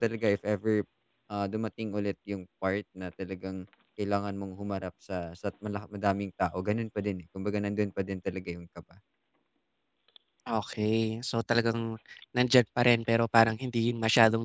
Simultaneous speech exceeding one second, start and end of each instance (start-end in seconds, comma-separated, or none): none